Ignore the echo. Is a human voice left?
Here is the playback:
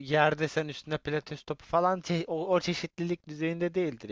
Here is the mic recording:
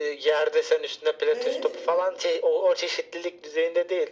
Yes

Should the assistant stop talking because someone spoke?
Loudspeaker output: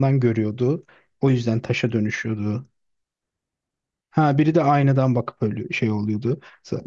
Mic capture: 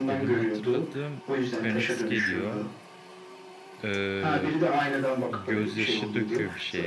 Yes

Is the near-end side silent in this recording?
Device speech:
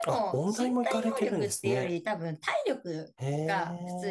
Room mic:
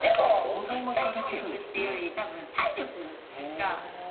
Yes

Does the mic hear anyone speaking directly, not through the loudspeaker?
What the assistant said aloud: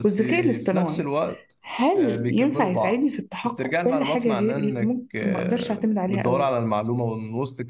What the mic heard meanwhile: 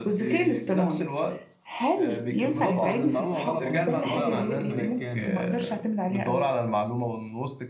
Yes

